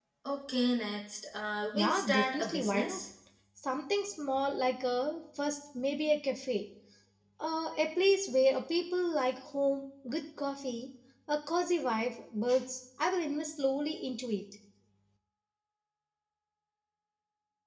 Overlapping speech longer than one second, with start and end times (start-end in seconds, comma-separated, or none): 1.7-3.0